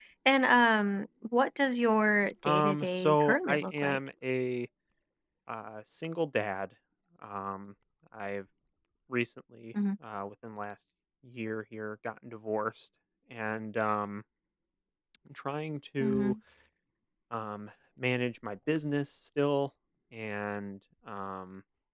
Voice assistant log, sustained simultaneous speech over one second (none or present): present